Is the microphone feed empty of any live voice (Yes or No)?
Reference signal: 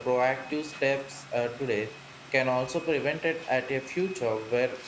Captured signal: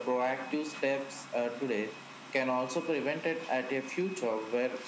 Yes